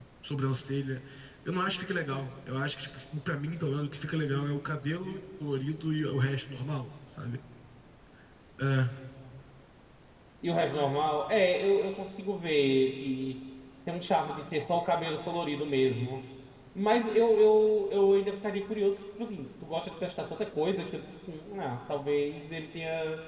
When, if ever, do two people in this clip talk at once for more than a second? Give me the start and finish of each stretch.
none

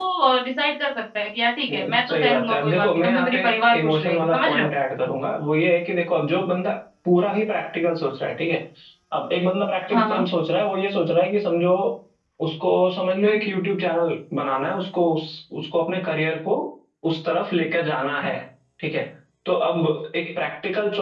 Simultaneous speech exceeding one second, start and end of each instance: 1.7-4.7

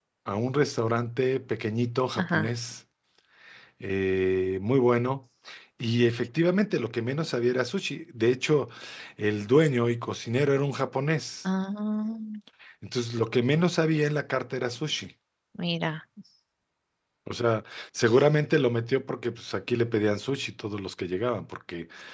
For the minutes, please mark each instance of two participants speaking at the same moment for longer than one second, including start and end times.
none

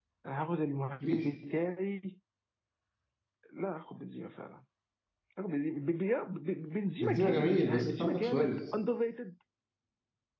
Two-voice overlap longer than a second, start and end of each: 7.0-8.6

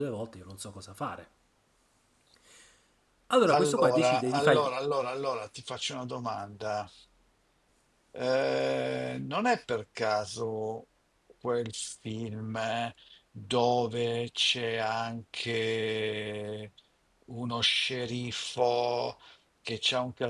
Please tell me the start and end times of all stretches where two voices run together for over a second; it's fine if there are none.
3.5-4.7

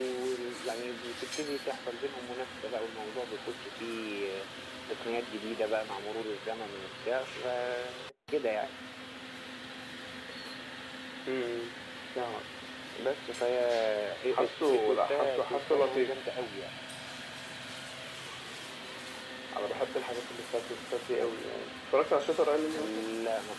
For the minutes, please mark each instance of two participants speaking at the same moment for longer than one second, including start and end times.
14.4-16.1

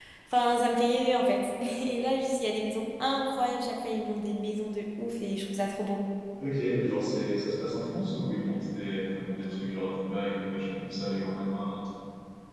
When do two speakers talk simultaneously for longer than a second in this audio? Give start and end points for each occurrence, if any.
none

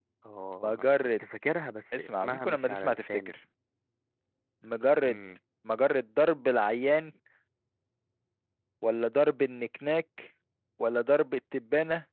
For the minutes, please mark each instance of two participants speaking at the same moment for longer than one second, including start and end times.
2.0-3.3

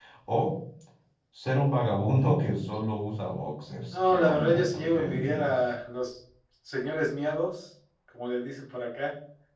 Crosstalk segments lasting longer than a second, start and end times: 3.9-5.5

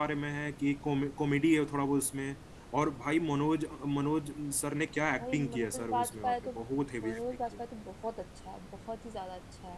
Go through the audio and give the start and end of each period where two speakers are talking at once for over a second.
5.2-6.5

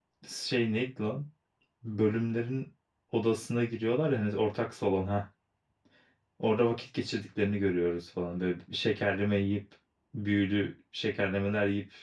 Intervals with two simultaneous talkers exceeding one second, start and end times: none

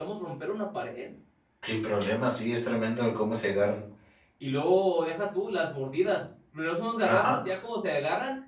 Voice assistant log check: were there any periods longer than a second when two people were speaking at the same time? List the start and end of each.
none

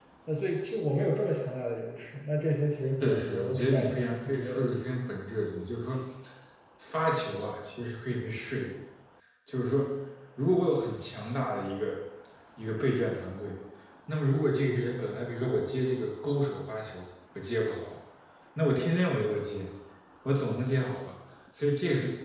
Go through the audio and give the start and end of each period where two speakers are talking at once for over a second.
3.0-4.7

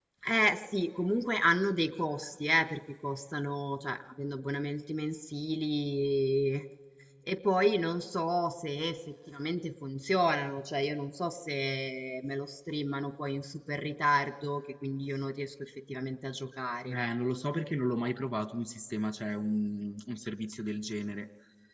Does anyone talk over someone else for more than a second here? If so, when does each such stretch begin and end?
none

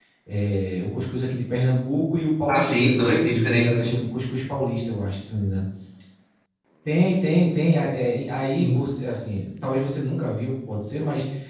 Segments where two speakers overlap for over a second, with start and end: 2.5-4.0

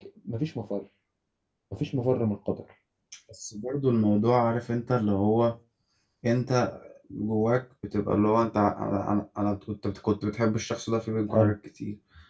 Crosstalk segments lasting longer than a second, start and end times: none

